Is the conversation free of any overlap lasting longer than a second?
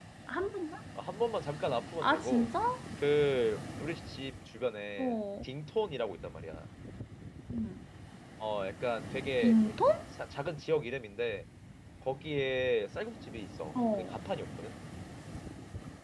Yes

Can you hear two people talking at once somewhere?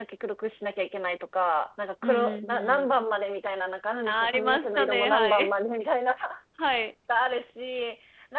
Yes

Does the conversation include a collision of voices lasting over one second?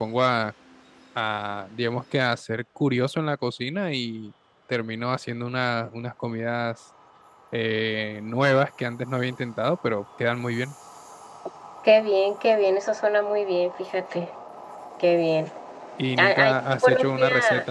Yes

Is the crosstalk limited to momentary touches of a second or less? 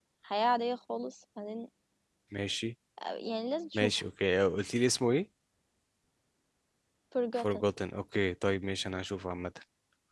Yes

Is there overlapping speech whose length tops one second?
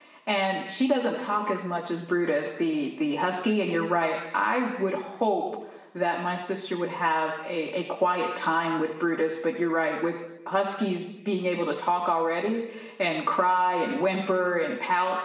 No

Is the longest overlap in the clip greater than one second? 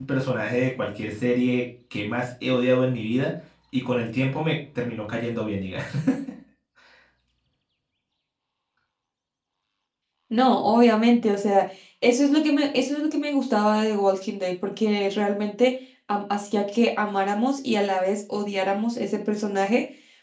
No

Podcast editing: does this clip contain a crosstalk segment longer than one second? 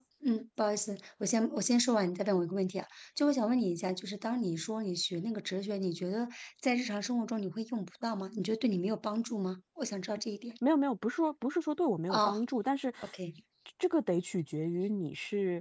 No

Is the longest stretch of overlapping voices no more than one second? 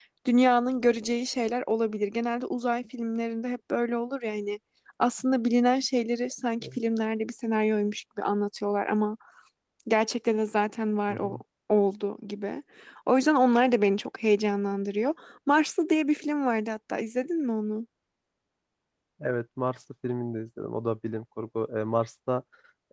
Yes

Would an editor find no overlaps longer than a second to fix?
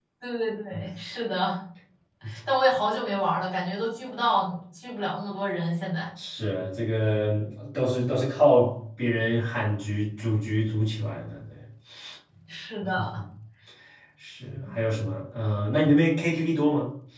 Yes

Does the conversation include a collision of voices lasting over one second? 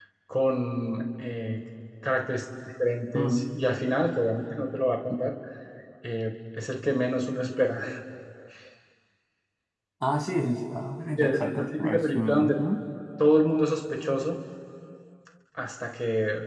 Yes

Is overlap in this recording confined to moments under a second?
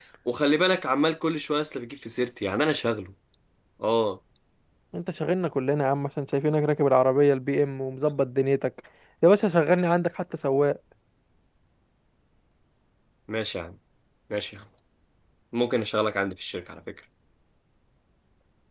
Yes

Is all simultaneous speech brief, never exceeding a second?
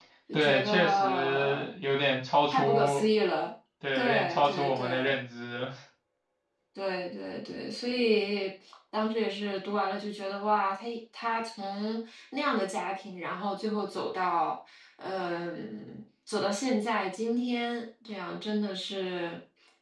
No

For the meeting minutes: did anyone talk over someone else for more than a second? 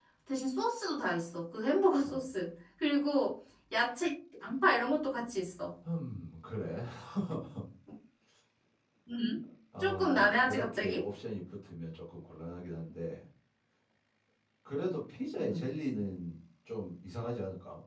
Yes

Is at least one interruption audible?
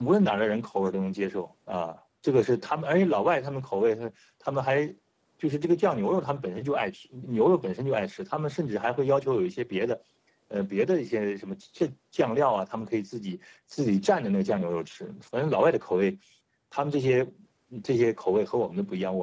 No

